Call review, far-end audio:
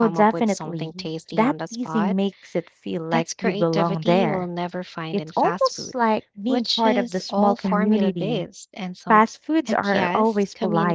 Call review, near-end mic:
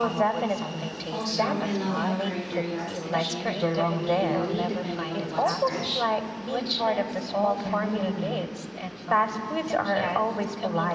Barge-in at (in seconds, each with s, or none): 1.1 s